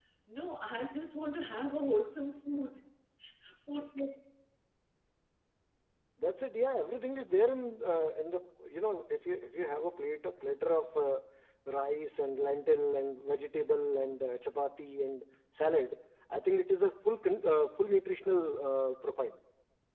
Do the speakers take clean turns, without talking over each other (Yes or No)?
Yes